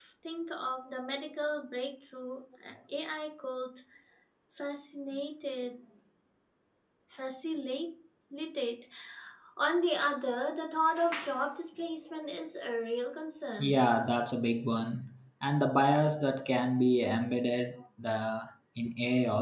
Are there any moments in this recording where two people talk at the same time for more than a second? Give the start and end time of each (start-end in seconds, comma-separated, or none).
none